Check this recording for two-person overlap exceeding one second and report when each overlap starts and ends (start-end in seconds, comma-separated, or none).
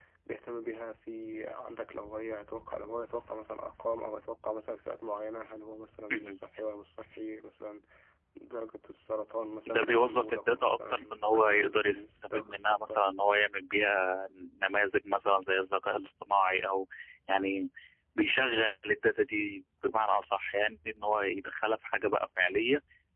9.7-13.0